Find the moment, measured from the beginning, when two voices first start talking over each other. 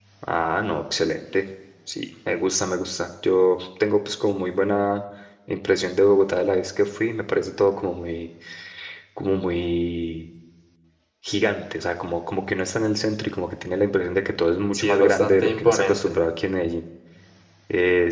14.7 s

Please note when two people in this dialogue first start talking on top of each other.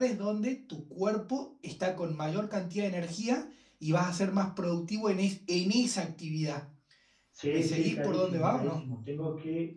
7.5 s

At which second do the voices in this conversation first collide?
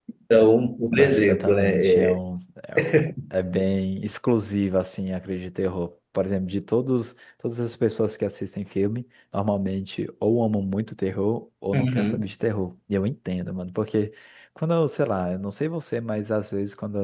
1.0 s

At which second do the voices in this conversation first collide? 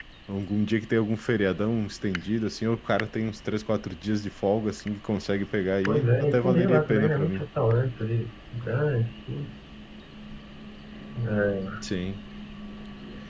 5.9 s

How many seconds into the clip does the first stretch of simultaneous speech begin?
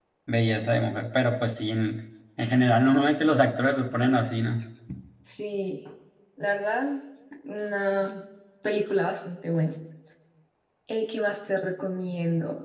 none

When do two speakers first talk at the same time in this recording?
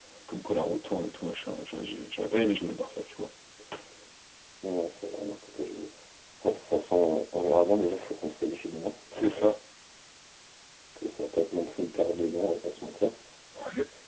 none

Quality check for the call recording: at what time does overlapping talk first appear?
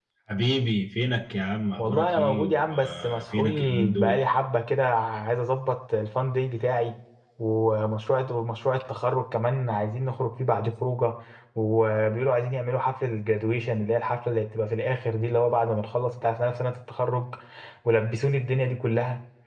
1.8 s

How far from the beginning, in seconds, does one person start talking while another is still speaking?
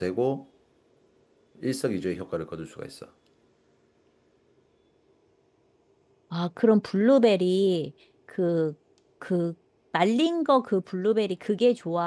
none

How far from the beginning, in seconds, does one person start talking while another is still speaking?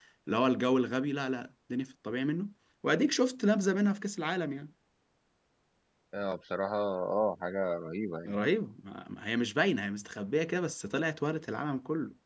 none

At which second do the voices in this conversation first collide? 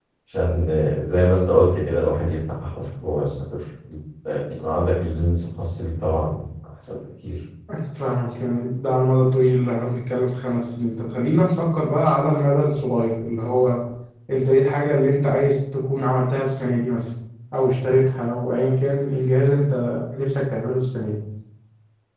none

